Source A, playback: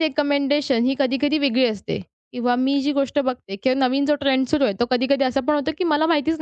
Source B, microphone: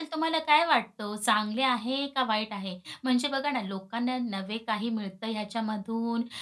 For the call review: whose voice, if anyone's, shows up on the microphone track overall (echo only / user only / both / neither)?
user only